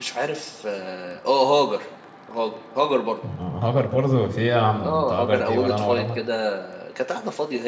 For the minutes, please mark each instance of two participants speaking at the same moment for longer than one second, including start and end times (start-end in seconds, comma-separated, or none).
4.8-6.2